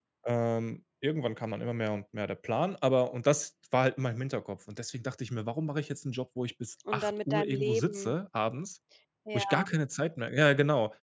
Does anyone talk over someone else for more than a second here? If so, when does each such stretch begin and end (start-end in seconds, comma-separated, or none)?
6.9-8.1